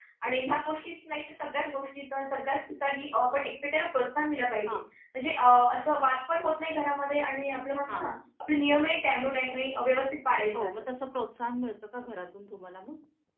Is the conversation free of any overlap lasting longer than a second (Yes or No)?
Yes